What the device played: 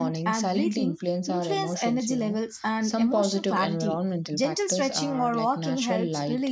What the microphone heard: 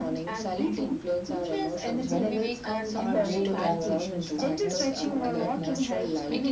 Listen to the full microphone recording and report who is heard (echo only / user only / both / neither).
both